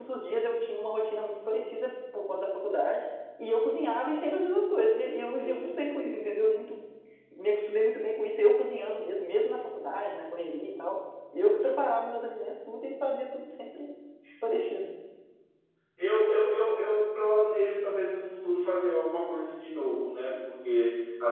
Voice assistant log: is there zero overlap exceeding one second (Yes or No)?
Yes